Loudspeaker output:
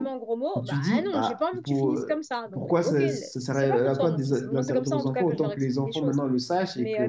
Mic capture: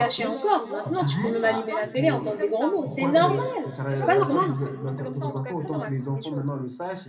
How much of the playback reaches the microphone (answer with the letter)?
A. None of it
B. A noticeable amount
B